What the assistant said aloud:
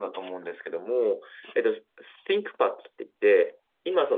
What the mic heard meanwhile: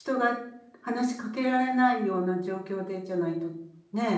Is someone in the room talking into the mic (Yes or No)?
Yes